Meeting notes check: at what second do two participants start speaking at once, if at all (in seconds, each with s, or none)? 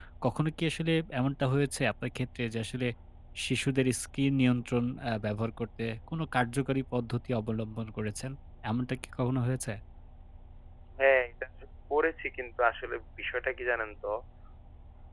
none